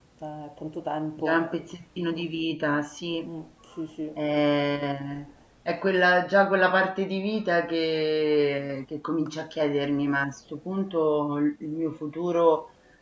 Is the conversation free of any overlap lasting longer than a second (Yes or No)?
Yes